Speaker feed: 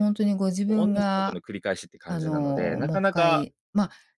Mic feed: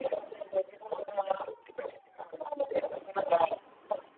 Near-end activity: none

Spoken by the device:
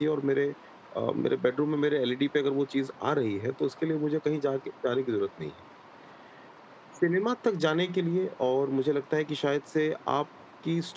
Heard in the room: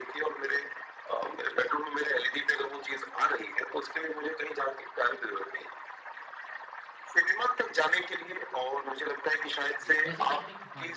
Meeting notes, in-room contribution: present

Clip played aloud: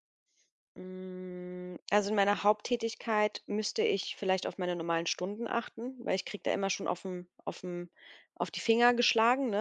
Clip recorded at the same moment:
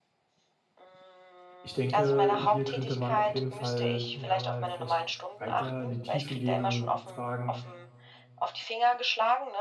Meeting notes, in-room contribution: present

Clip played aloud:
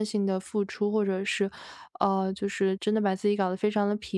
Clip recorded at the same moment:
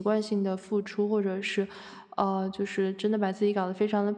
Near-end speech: none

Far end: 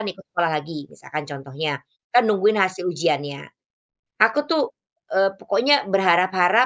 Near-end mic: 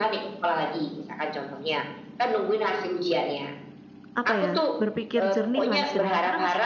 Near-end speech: present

